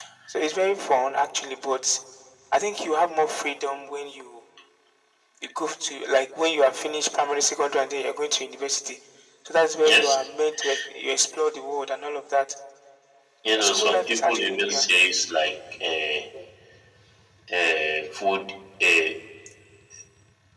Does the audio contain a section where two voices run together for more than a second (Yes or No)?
Yes